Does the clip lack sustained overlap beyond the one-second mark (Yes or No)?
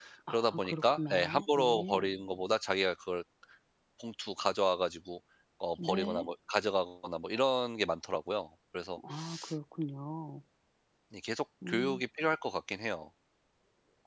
No